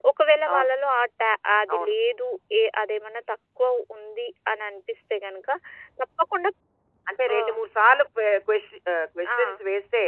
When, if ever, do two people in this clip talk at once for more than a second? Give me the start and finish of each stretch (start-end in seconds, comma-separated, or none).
none